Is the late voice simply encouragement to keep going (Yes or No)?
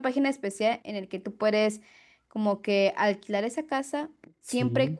Yes